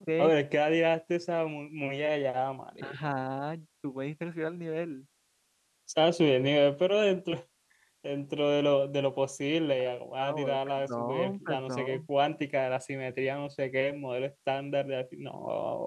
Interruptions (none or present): present